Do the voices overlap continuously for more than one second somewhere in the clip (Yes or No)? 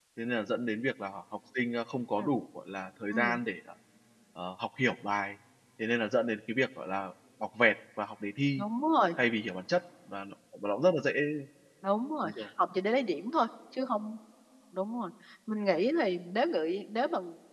No